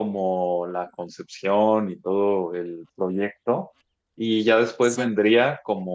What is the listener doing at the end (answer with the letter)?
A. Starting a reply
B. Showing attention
B